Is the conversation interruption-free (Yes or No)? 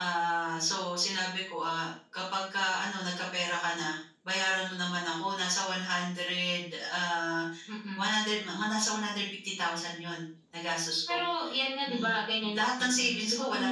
No